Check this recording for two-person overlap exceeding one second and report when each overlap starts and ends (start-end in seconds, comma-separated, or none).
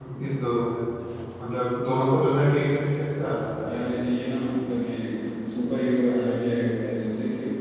none